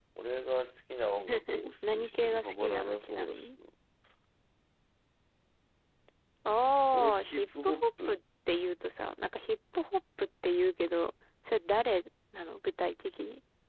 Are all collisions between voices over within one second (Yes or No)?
No